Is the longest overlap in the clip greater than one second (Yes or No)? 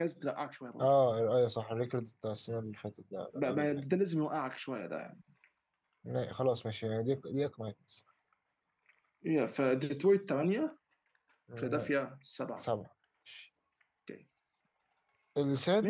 No